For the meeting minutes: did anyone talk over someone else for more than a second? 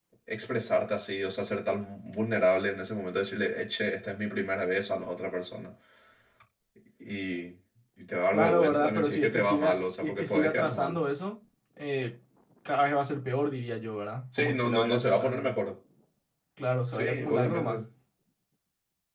Yes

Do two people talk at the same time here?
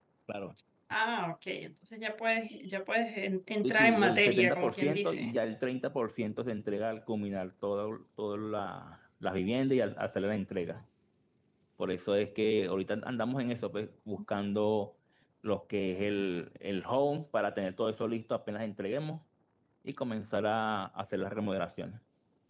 Yes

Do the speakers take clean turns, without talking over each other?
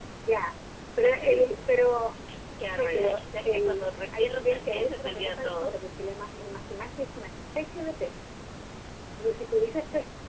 No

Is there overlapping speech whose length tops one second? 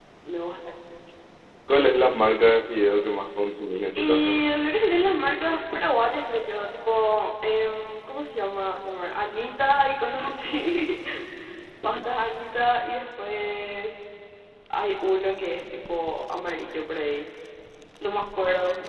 No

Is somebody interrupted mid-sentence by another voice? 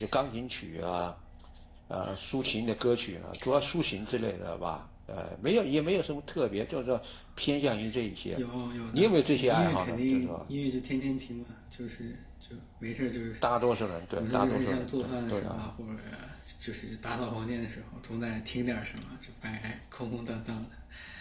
Yes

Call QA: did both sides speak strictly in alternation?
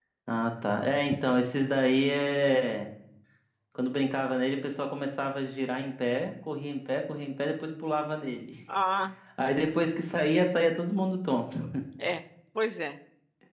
Yes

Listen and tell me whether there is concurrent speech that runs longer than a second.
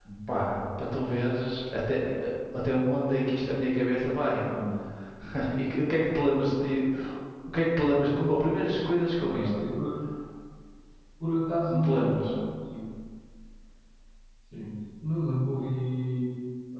No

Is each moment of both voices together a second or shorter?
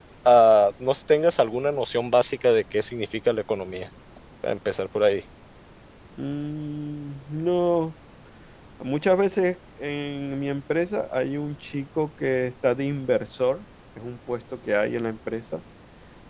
Yes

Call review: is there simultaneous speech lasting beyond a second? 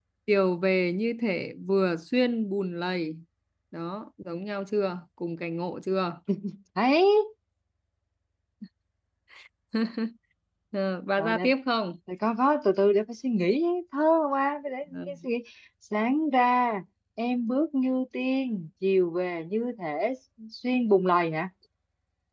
No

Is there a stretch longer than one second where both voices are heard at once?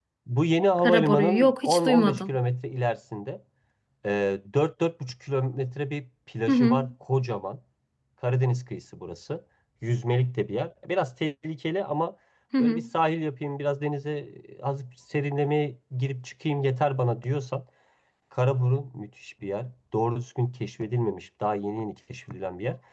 Yes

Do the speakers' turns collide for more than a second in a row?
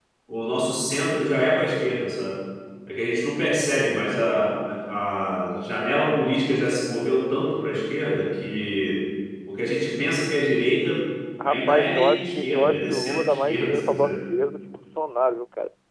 Yes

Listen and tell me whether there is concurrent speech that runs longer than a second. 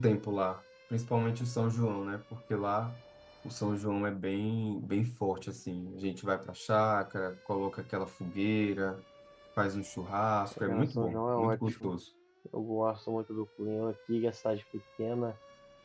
Yes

